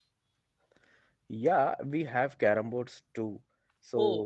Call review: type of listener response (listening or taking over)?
listening